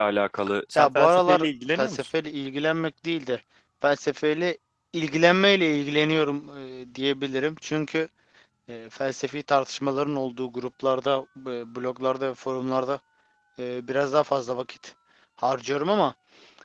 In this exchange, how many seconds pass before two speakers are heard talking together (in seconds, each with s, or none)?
0.8 s